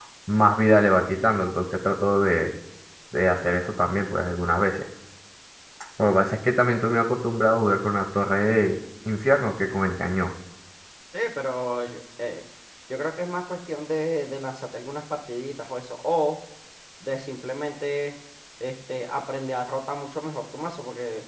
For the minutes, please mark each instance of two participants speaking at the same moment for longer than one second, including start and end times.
none

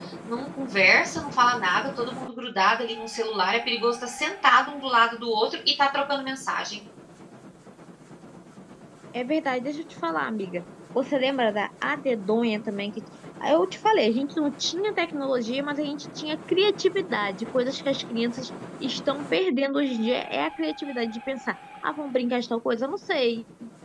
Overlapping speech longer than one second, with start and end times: none

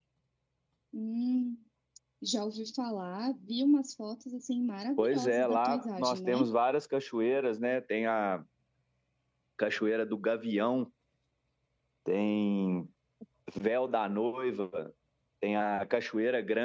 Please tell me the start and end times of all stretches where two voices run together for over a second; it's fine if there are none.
5.0-6.5

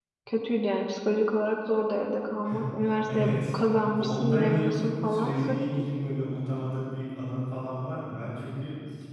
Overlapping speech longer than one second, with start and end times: 4.0-5.3

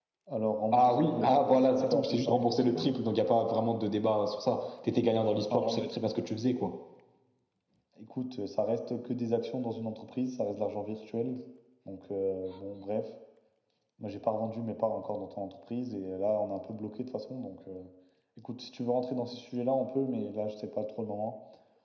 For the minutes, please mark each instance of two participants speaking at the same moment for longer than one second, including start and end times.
0.7-2.9

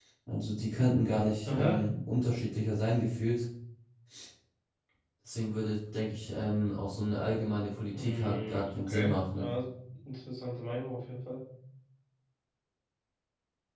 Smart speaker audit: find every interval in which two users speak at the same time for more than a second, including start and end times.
7.9-9.4

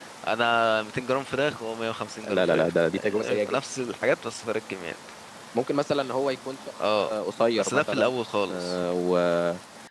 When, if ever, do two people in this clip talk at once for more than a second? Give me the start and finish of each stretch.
2.3-3.6

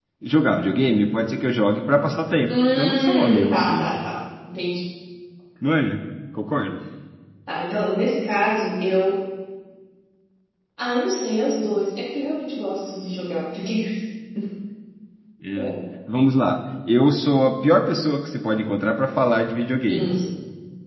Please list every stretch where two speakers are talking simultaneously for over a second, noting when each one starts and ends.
2.5-3.9

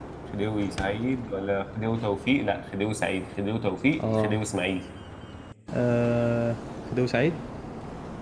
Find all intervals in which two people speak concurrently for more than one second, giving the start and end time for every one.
none

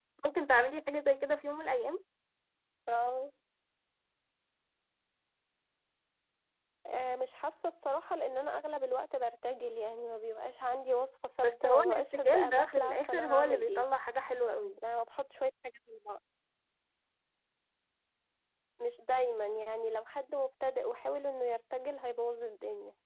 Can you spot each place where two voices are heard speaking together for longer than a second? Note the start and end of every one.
11.6-13.8

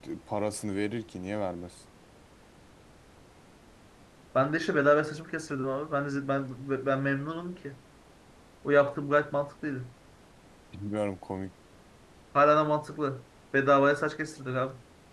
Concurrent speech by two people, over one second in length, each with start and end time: none

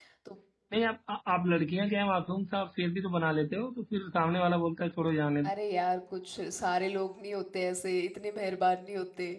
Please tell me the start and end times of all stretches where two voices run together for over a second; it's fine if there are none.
none

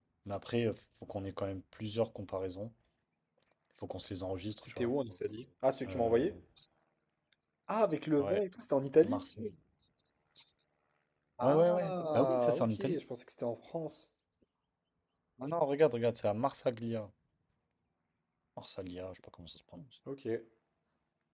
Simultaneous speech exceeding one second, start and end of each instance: 11.4-13.0

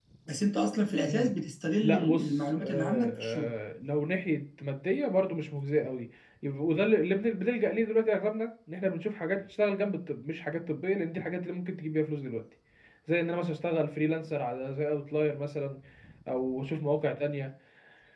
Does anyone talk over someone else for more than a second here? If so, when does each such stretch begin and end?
1.8-3.5

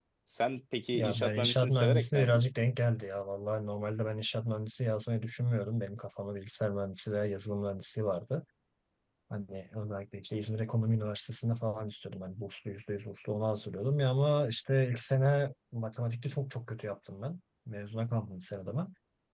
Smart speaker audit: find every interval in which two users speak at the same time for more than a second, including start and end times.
0.9-2.4

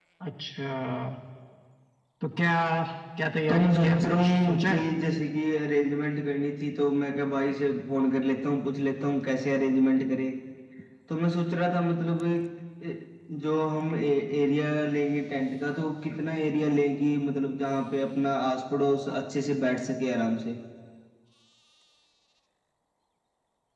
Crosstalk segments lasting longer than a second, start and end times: 3.5-4.8

